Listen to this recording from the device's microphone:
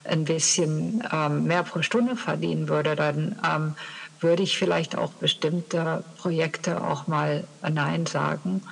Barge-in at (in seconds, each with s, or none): none